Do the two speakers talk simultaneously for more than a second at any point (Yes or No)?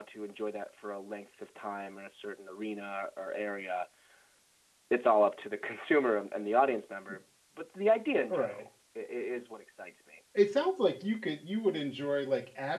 No